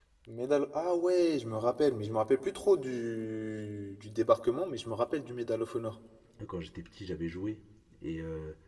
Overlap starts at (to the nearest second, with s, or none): none